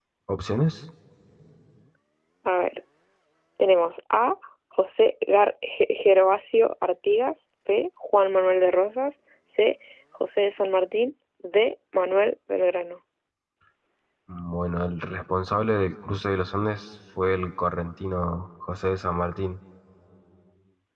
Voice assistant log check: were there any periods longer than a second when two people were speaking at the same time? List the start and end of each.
none

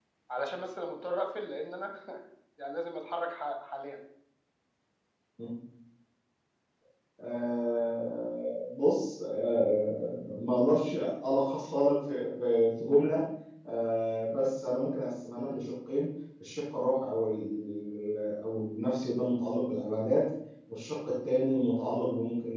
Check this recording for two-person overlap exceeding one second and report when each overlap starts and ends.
none

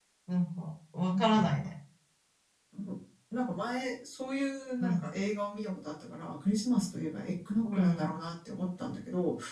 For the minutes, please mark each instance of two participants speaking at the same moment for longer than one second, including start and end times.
none

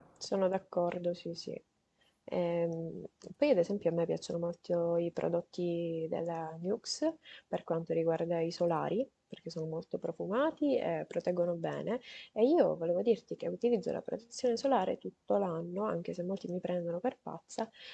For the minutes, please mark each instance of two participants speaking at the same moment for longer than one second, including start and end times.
none

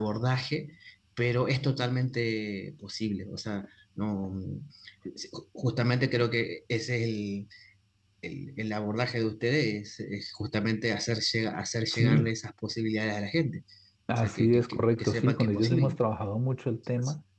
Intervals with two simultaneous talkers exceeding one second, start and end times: 14.1-16.0

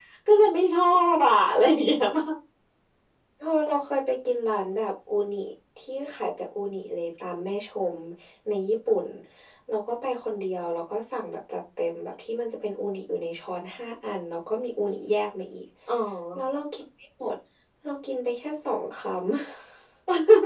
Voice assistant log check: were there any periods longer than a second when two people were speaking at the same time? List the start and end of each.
none

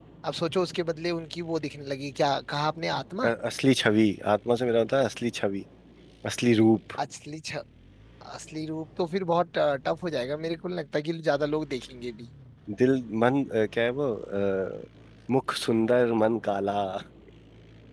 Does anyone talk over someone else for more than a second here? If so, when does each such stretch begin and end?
none

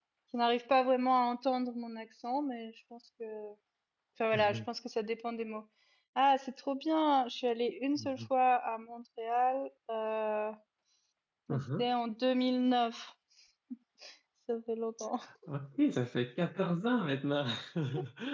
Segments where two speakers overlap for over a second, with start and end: none

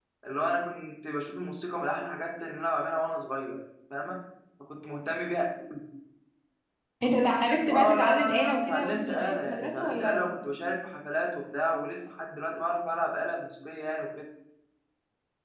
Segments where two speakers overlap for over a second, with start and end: 7.7-10.2

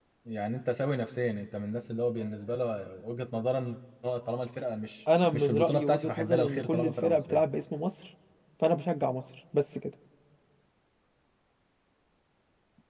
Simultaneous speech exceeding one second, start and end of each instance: 5.3-7.4

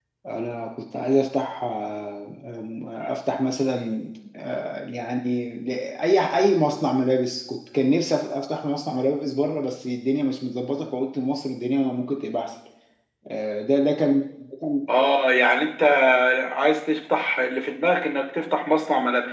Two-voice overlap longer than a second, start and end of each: none

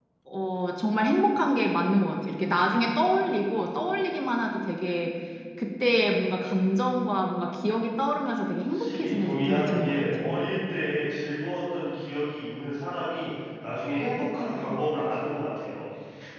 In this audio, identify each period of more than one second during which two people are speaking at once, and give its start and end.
8.7-10.4

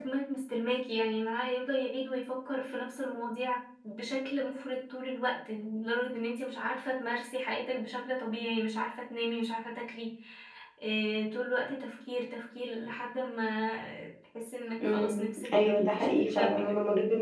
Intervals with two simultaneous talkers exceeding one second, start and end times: 14.8-16.7

